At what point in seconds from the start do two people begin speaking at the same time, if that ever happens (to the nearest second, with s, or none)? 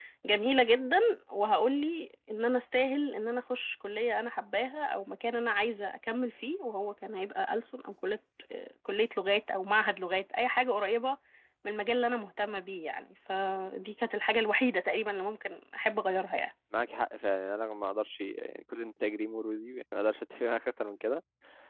none